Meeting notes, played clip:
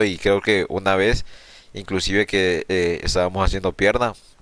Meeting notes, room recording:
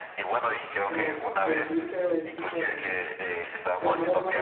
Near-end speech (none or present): present